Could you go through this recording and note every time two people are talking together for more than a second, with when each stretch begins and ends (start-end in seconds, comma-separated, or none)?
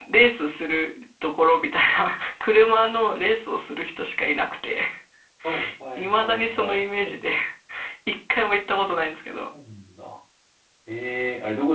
6.0-7.2